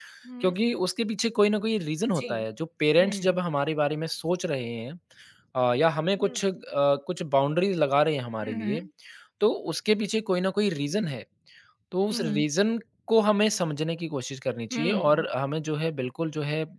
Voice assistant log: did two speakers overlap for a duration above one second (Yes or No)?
No